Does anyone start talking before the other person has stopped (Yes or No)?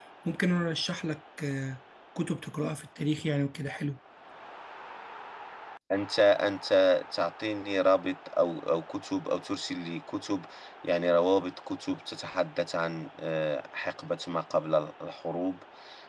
No